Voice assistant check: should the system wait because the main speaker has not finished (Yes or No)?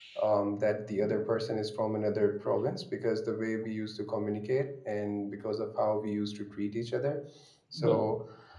Yes